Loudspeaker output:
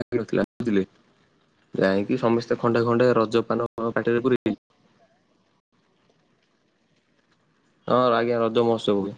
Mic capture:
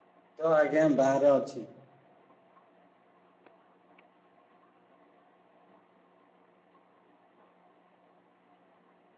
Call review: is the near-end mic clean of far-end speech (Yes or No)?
Yes